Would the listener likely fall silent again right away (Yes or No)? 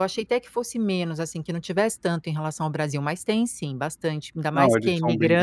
No